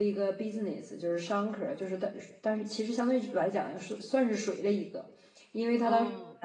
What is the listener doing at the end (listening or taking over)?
listening